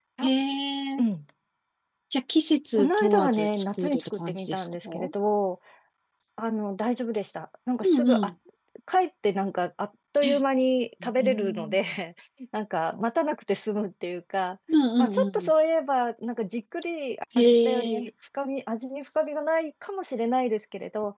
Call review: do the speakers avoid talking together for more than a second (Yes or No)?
No